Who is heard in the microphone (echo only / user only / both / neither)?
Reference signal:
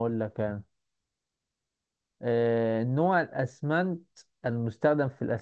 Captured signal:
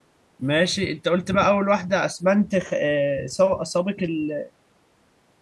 user only